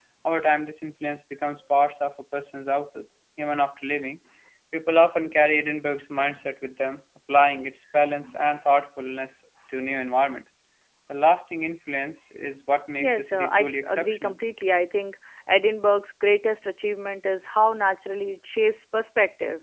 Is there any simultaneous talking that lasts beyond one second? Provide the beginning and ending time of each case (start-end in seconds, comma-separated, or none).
13.0-14.3